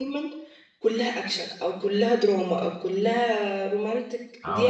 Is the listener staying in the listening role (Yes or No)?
No